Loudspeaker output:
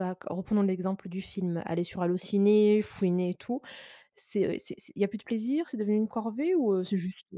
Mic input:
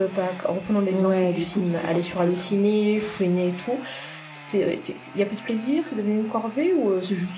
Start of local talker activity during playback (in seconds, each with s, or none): 0.9 s